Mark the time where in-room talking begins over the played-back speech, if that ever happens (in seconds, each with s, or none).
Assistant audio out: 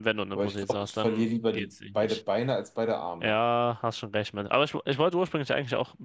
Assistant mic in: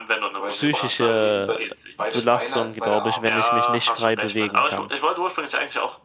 0.5 s